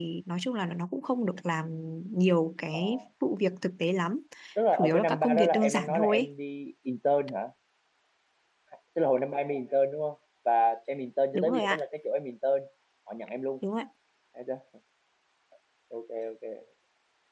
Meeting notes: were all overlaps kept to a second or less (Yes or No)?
No